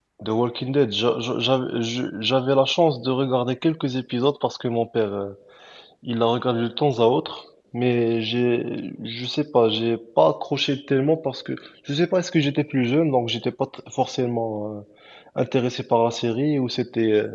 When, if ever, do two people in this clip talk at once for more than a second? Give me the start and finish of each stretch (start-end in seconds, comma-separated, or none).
none